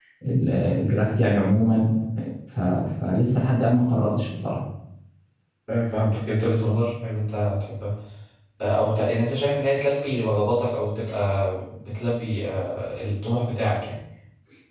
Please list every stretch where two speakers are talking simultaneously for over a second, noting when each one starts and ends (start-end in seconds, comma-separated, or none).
none